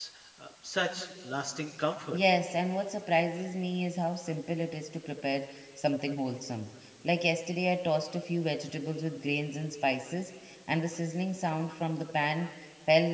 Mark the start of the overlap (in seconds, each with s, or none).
none